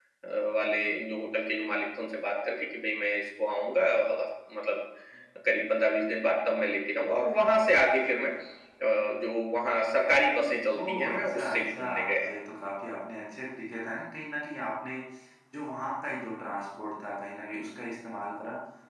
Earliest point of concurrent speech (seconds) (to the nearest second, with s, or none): 11 s